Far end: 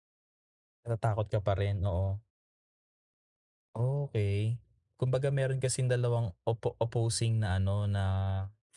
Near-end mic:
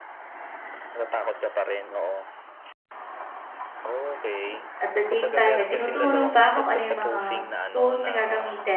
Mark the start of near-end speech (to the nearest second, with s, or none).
5 s